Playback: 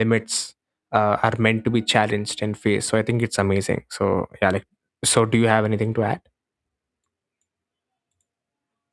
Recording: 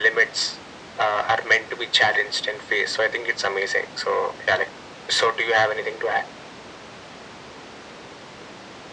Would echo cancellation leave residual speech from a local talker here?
No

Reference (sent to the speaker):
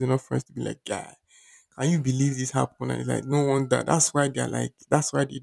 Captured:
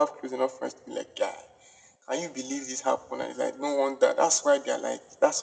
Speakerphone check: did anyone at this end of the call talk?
No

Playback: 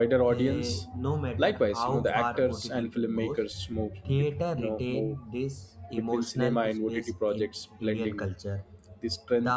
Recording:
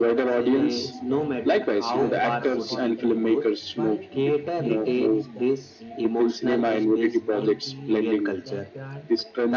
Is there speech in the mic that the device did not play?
Yes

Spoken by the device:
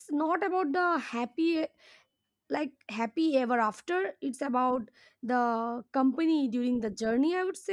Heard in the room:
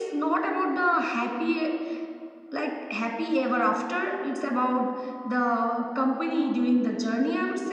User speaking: No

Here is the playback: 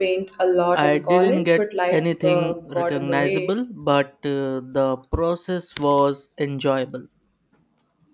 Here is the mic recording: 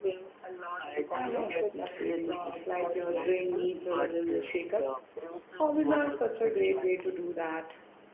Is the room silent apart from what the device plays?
No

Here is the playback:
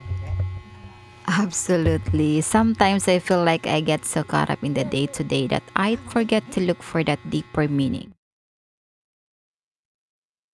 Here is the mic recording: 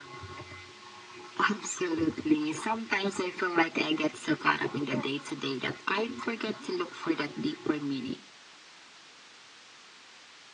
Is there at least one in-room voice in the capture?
No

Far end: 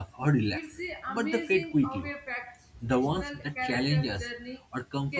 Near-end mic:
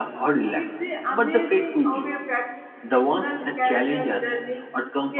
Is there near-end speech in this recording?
No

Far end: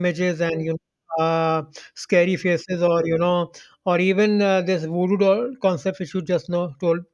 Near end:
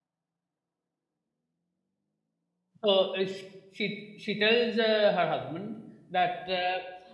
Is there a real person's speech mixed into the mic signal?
Yes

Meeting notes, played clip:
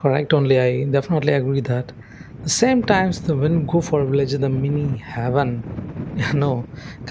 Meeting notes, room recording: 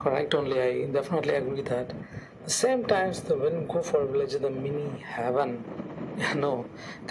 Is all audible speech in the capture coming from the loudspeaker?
Yes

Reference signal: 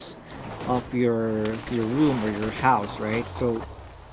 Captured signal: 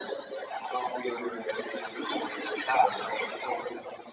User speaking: Yes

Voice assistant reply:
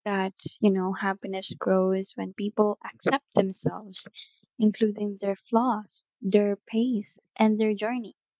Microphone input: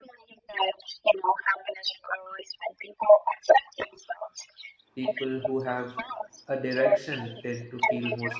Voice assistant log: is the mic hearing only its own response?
No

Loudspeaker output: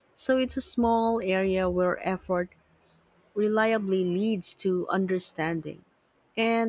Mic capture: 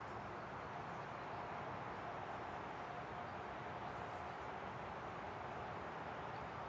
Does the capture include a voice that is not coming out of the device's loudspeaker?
No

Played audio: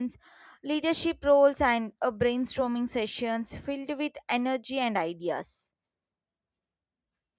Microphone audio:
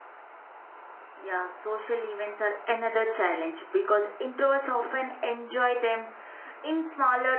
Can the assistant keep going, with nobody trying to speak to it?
No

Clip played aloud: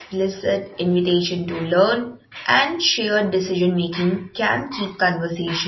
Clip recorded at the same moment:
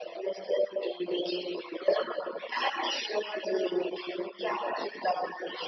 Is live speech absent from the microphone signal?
Yes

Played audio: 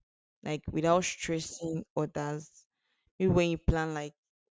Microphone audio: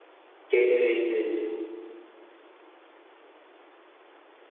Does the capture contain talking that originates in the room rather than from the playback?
Yes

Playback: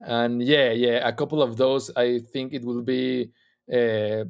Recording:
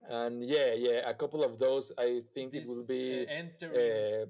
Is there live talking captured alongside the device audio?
Yes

